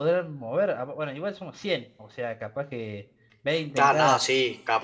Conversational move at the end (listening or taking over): taking over